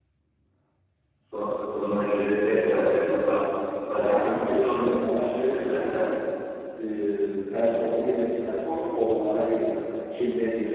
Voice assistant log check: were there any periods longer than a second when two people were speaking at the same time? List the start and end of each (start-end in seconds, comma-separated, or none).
4.0-6.1